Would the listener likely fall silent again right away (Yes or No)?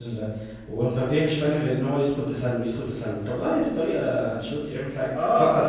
No